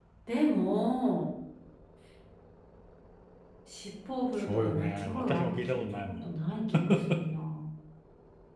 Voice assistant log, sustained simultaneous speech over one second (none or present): present